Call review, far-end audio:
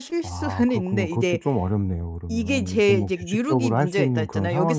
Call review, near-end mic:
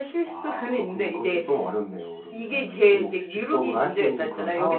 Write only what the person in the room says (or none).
none